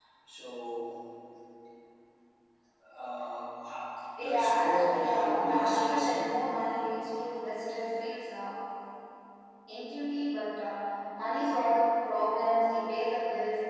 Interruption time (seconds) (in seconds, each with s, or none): 4.2 s